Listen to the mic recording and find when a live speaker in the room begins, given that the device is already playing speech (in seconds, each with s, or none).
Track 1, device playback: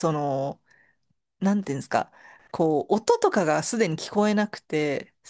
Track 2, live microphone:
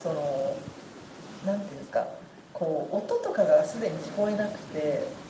none